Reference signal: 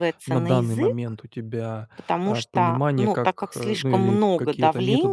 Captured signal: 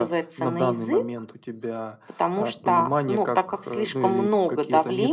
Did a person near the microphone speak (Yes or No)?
No